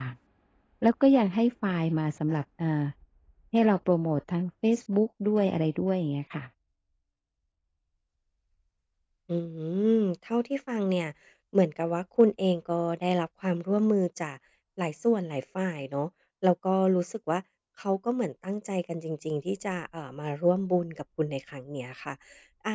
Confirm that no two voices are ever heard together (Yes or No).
Yes